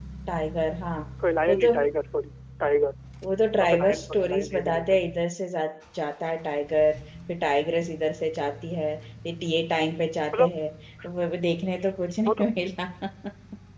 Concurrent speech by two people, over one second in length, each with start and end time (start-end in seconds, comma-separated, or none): 3.6-4.8